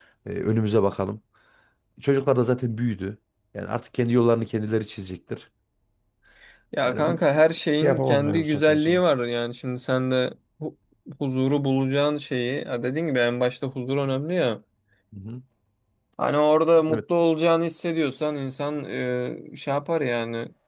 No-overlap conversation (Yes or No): No